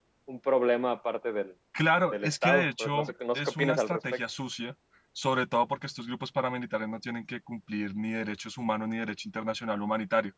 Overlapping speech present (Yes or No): Yes